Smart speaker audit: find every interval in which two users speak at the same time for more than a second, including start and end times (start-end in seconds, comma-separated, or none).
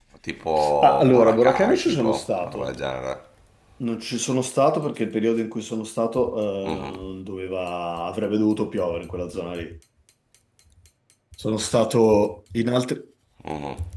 0.8-2.7